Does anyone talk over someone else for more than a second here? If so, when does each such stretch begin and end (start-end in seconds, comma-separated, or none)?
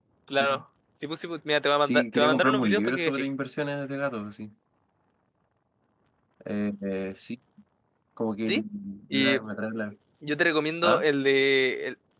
1.8-3.2